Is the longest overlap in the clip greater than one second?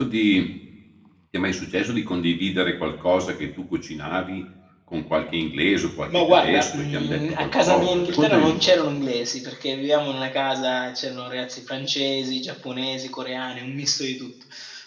Yes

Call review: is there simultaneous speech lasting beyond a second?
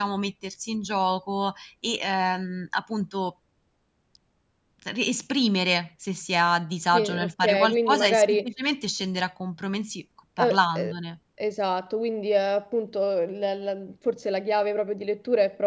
Yes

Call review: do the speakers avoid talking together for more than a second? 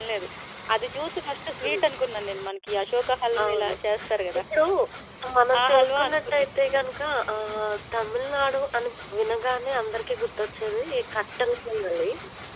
No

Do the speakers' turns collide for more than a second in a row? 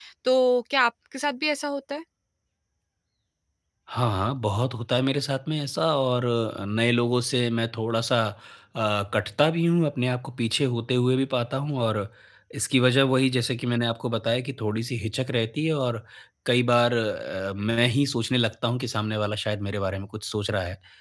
No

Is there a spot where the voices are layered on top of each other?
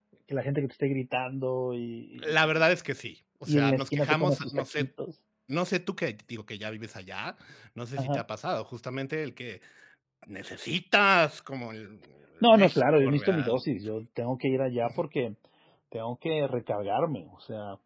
Yes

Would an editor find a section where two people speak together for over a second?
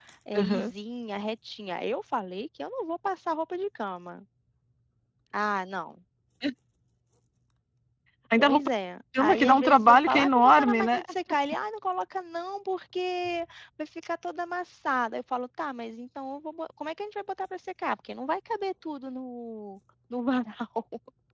Yes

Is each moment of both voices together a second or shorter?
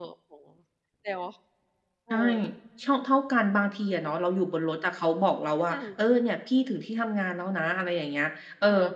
Yes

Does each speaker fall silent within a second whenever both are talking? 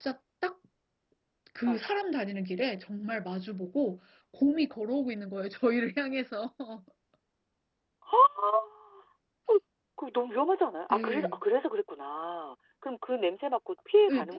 Yes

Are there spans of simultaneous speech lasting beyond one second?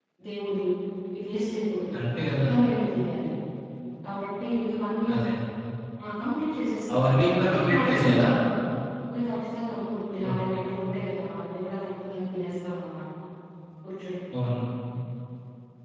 Yes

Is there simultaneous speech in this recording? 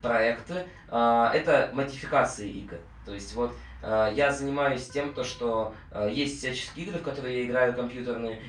No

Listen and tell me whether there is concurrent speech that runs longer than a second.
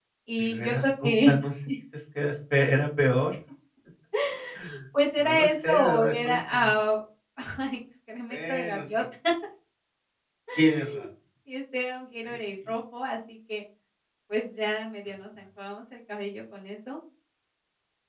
Yes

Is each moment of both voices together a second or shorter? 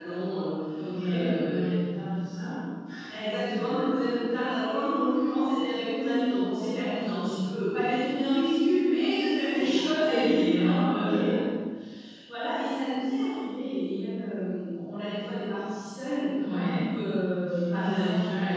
No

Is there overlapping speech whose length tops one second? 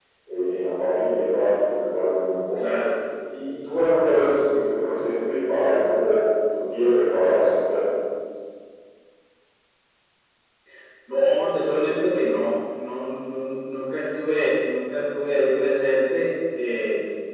No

